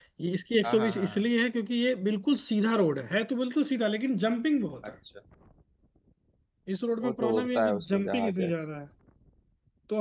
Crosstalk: present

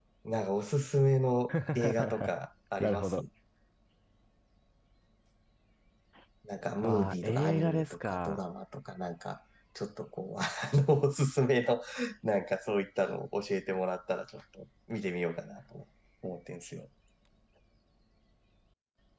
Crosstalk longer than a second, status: present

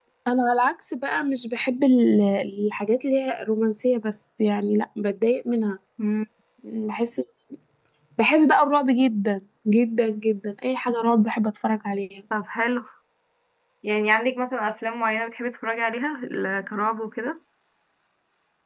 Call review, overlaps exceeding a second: none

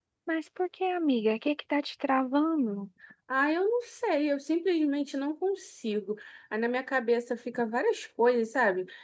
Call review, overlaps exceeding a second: none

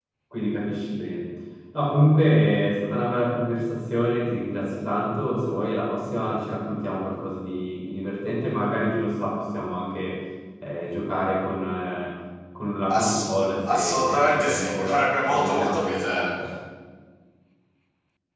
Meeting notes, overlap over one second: present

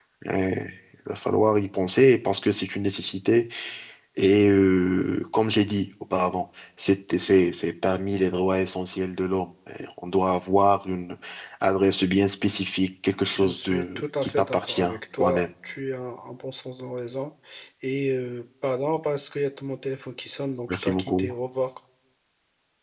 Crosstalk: present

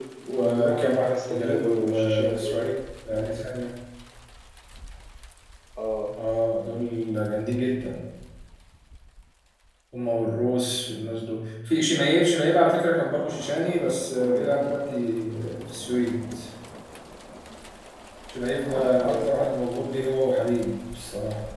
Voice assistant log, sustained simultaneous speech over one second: present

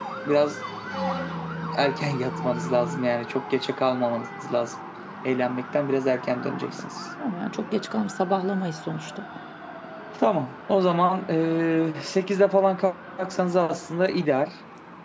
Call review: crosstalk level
none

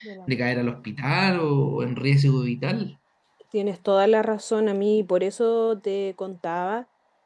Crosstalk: none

